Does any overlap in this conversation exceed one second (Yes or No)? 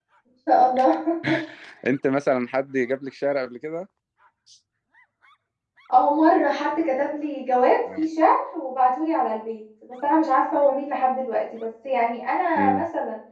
No